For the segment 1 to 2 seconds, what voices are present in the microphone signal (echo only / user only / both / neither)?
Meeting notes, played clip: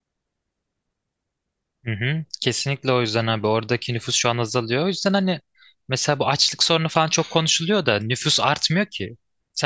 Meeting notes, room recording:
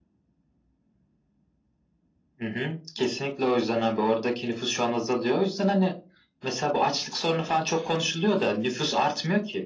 neither